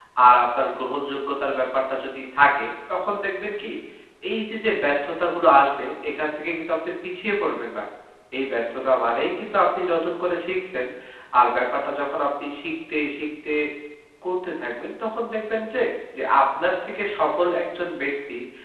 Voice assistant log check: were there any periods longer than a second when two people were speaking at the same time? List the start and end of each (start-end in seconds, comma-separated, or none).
none